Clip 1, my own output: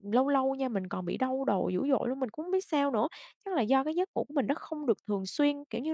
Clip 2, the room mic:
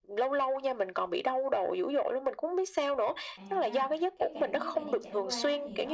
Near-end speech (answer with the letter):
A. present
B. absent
A